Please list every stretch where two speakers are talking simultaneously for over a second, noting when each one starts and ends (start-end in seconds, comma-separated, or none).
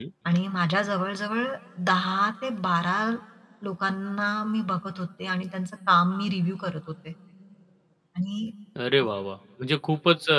none